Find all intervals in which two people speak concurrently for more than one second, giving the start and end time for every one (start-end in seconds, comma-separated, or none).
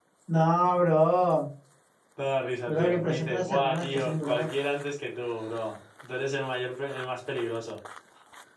2.7-4.5